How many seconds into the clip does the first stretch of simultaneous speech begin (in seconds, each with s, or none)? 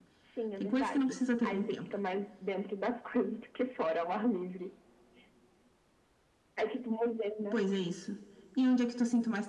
0.6 s